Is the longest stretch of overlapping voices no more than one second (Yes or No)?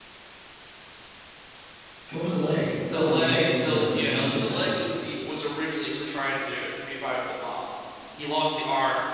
No